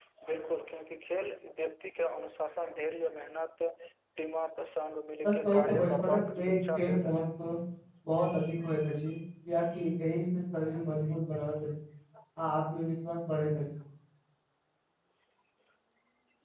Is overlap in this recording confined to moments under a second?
No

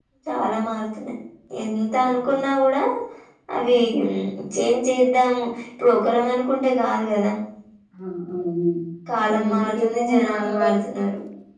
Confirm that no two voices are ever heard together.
No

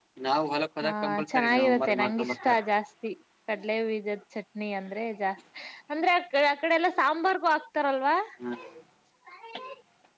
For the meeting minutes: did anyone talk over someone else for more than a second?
Yes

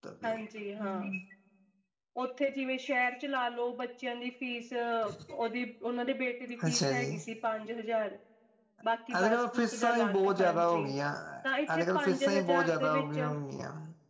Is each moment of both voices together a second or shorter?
No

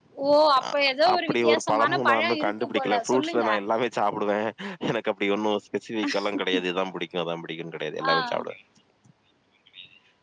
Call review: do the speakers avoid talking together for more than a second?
No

